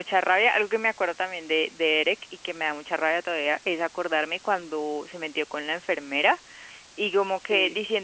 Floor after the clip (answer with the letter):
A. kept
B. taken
A